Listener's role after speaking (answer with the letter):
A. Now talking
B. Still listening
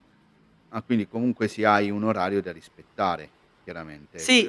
A